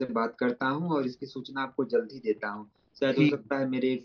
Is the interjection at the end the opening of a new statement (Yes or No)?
No